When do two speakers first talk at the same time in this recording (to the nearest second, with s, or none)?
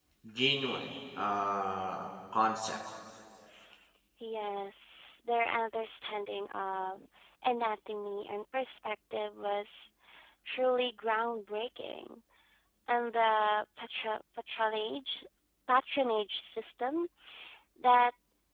none